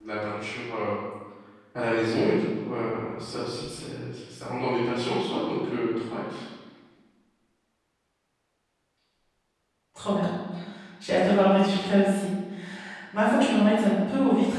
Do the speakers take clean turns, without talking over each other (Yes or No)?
Yes